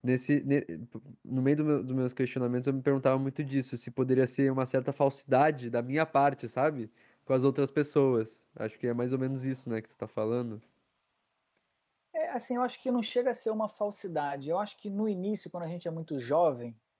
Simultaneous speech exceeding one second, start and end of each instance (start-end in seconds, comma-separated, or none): none